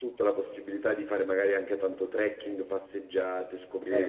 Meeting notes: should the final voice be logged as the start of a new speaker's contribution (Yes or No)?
No